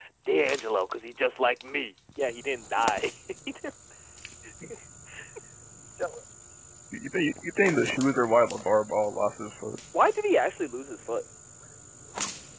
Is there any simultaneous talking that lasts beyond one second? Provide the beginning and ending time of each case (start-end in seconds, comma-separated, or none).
none